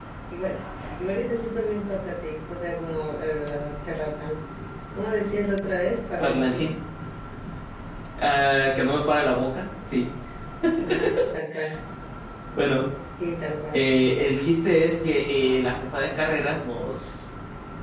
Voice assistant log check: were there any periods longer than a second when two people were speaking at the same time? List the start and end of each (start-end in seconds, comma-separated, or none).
none